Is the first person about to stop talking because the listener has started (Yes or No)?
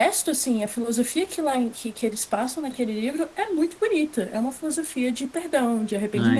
Yes